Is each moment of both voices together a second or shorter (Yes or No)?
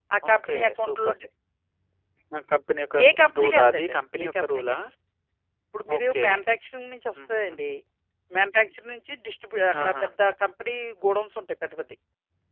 No